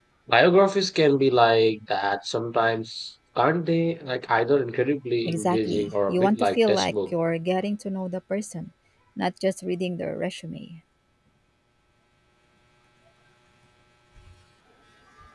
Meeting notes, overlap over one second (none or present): present